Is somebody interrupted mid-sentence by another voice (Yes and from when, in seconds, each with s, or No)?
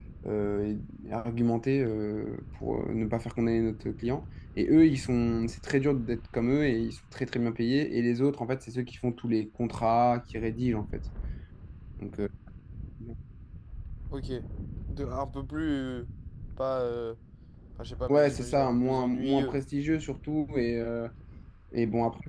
Yes, from 18.1 s